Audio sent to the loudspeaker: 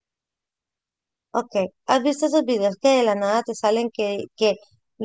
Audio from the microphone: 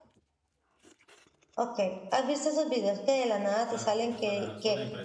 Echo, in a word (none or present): present